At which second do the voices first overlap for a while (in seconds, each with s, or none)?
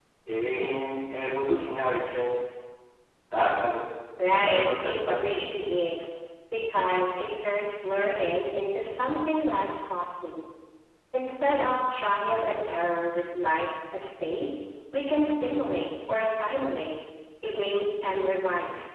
4.3 s